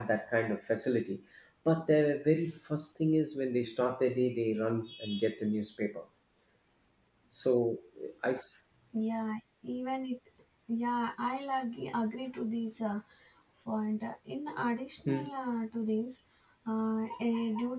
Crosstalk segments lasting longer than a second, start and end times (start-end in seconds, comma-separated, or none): none